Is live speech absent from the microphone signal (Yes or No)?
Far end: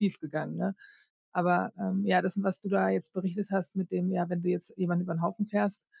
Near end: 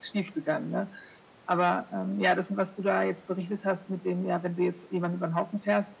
Yes